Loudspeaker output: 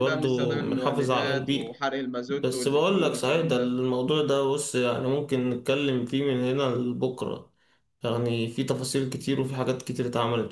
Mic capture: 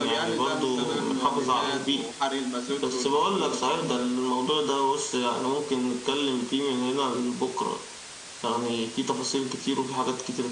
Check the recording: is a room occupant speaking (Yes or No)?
No